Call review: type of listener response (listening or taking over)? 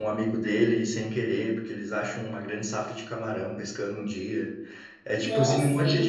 listening